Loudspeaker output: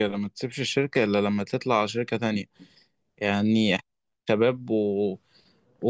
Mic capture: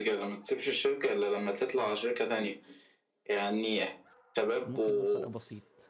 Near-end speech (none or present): present